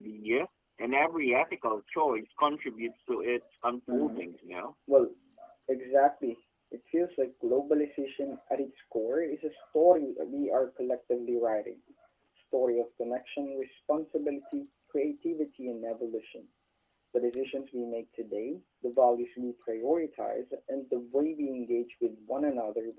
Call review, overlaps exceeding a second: none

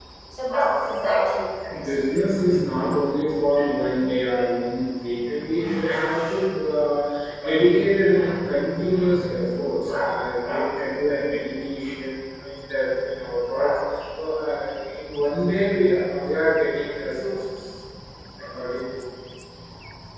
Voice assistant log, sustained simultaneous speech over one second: none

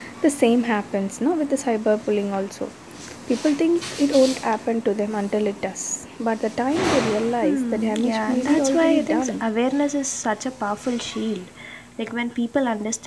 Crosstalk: present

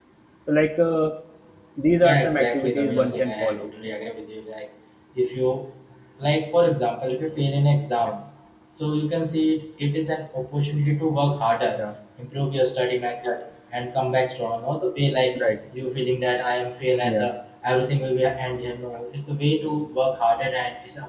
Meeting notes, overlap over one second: present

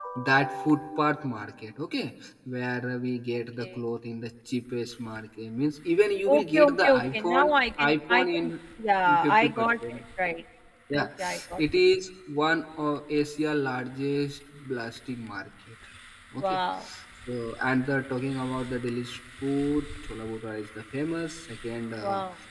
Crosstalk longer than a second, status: present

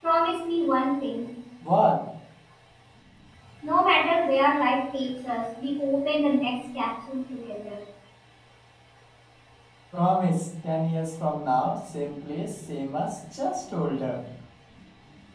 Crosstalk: none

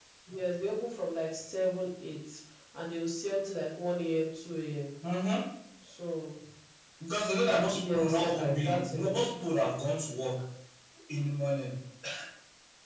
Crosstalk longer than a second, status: present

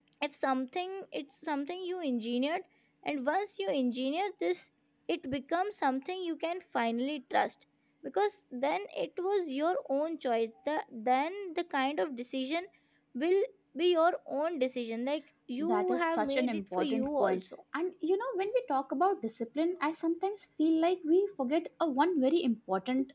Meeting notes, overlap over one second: present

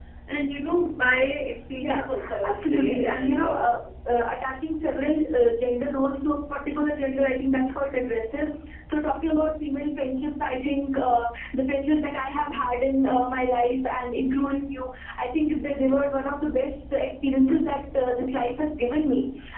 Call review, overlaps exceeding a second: present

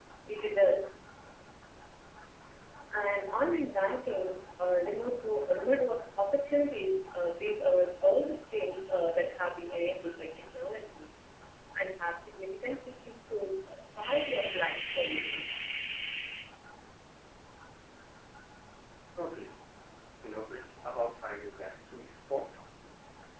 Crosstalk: none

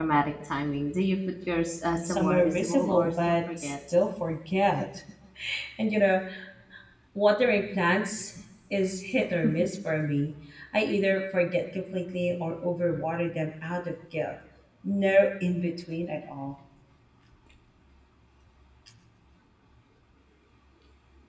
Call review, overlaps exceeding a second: present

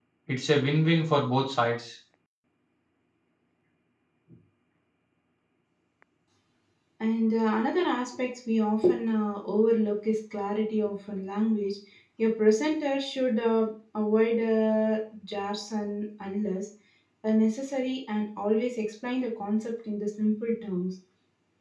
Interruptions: none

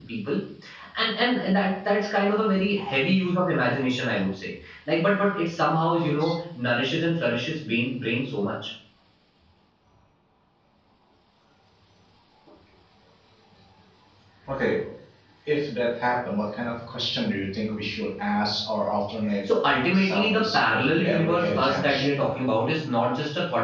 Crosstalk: present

